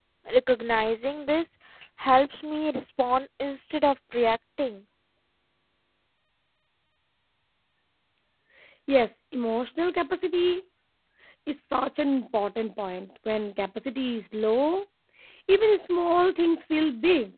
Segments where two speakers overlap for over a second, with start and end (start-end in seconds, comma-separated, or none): none